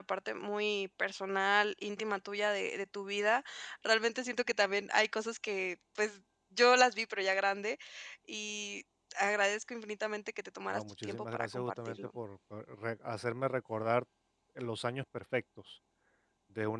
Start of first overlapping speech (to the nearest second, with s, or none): 11 s